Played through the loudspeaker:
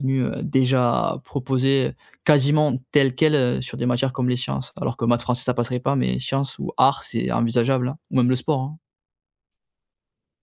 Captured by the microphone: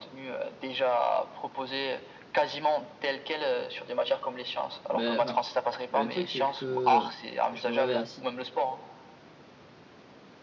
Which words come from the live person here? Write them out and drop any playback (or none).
Ben, enfin, le truc c'est que je me réveille à